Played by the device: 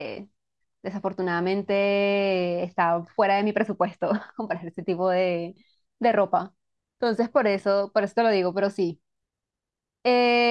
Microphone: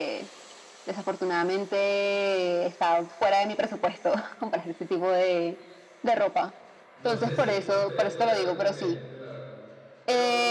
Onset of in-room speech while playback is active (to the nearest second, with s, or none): 7 s